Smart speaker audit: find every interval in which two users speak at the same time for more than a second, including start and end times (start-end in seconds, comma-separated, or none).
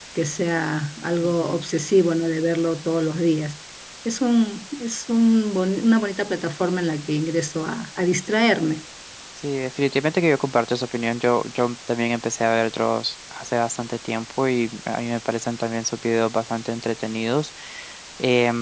none